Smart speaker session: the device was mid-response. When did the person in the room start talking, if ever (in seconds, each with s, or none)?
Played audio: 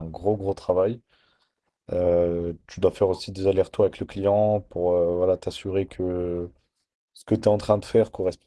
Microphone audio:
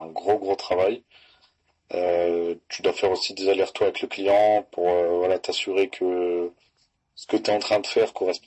none